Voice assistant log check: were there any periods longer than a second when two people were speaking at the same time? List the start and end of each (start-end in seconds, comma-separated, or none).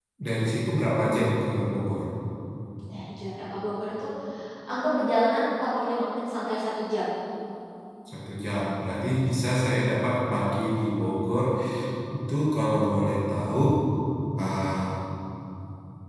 none